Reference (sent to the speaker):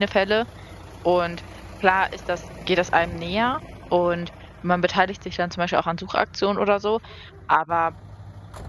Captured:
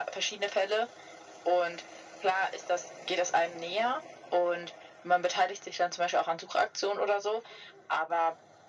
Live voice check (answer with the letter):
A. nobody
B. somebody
A